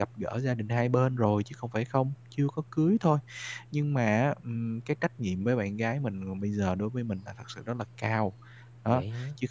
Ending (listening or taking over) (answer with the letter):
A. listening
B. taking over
A